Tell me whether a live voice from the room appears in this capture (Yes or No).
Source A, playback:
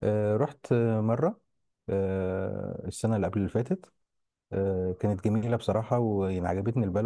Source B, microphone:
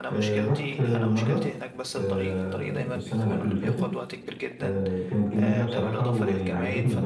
Yes